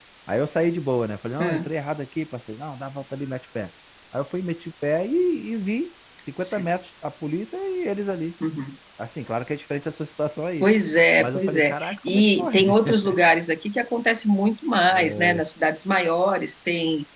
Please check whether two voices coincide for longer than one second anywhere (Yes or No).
Yes